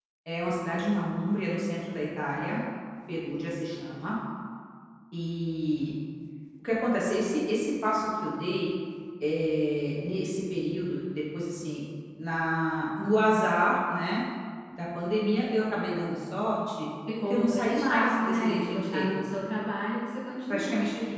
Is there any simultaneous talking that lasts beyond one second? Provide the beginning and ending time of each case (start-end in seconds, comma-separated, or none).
17.3-19.2